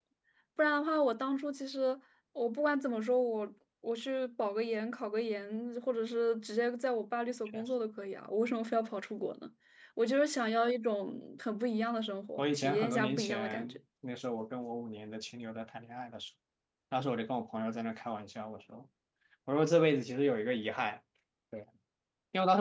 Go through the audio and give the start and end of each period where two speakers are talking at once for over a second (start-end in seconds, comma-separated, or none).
12.4-13.8